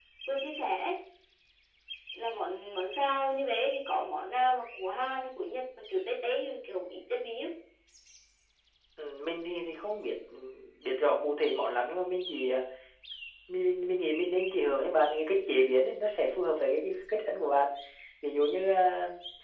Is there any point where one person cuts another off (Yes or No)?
No